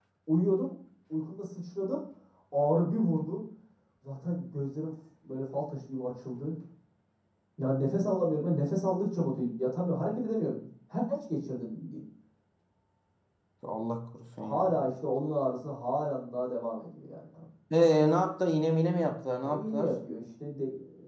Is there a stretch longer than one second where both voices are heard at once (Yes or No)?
No